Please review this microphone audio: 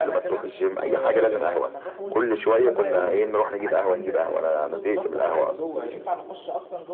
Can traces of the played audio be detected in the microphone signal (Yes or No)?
Yes